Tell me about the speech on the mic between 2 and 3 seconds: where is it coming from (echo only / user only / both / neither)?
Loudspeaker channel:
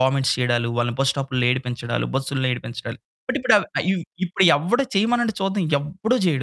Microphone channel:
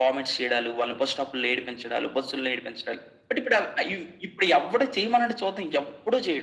echo only